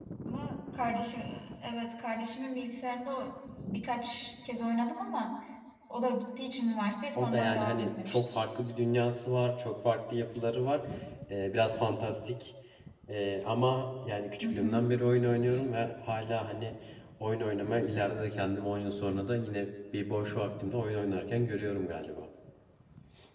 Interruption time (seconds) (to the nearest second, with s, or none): 7 s